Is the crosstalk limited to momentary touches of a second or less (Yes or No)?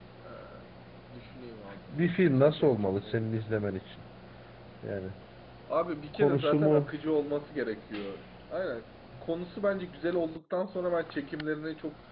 No